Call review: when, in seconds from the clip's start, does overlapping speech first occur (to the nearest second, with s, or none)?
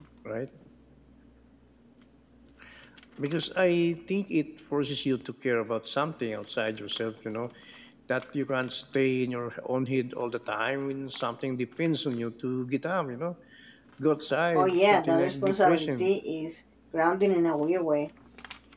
15 s